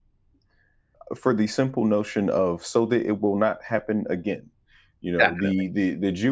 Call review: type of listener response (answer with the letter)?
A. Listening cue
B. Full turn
A